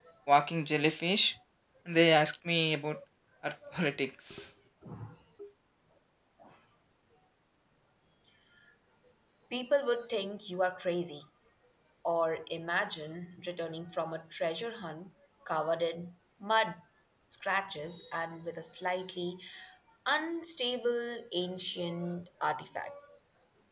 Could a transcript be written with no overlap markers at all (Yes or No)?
Yes